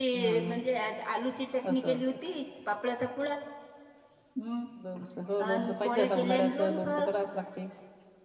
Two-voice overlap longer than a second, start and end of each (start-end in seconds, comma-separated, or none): 5.5-6.9